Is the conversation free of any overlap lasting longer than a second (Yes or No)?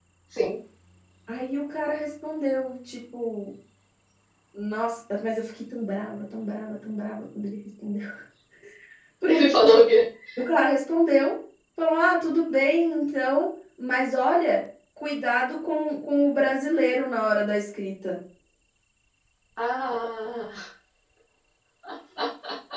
Yes